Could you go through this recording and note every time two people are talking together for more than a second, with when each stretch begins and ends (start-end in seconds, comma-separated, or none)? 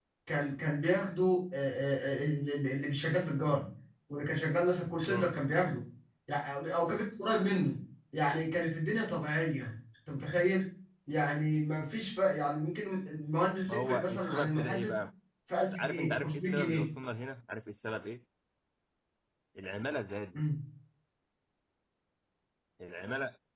13.7-15.0, 15.6-16.9